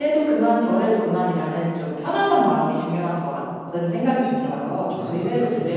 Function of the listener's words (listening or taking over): taking over